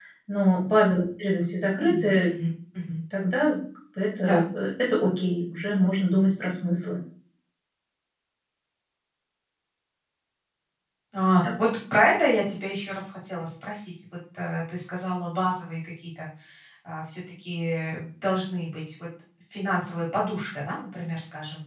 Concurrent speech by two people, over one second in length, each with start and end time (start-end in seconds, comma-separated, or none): none